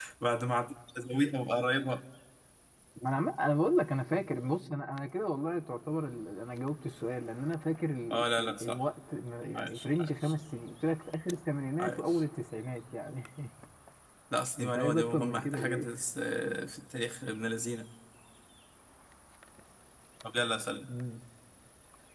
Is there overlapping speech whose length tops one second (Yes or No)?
Yes